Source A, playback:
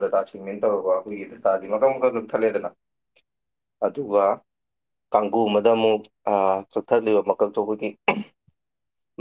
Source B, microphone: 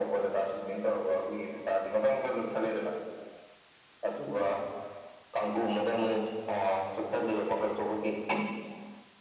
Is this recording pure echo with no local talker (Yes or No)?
Yes